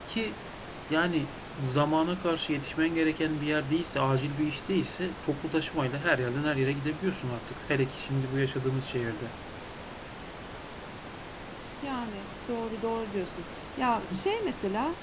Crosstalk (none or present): none